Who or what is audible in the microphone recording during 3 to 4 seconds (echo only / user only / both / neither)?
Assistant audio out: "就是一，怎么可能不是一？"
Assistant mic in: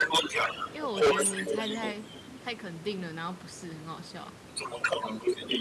user only